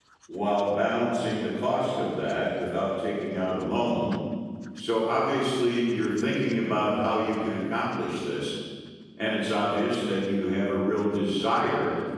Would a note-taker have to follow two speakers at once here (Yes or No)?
No